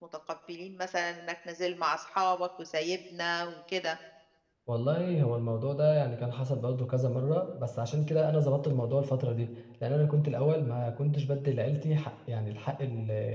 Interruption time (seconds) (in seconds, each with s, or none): none